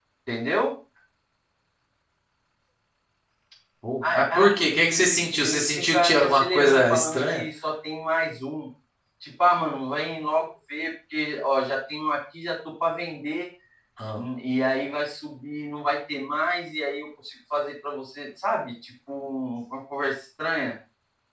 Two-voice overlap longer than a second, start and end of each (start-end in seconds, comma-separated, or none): 4.0-7.4